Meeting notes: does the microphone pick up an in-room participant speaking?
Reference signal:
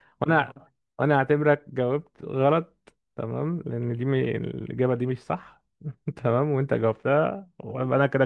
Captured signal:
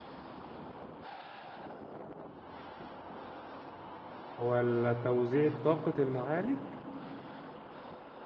Yes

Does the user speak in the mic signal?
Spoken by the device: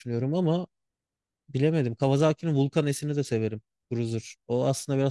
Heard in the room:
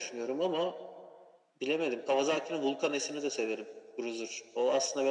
No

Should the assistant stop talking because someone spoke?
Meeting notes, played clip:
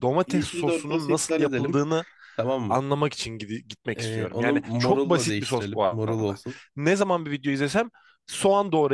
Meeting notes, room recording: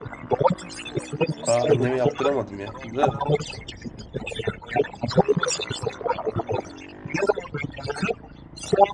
Yes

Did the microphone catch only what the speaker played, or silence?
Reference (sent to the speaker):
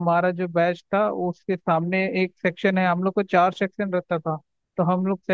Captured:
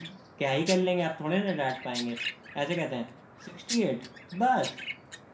No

